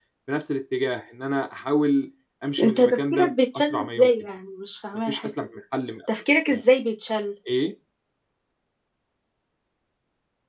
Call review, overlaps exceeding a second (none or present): present